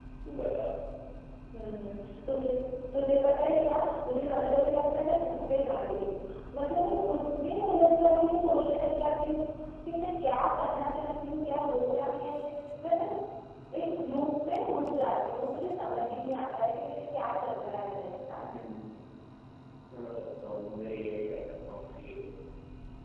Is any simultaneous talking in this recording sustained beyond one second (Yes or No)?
No